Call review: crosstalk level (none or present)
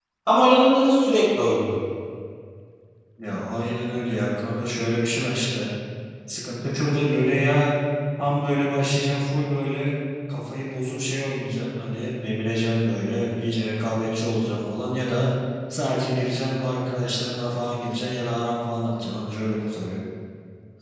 none